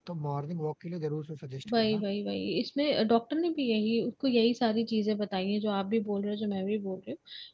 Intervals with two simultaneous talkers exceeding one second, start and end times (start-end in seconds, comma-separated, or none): none